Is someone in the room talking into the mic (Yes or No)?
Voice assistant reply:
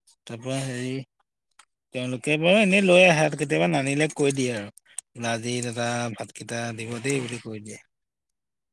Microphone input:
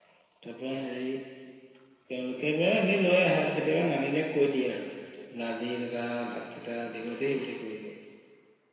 No